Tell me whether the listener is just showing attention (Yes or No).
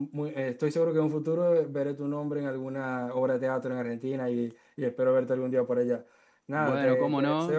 No